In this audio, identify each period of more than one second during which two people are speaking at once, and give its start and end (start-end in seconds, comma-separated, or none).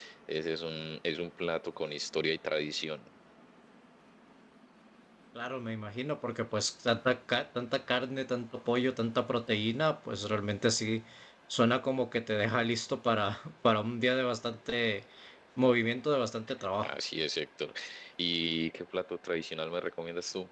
none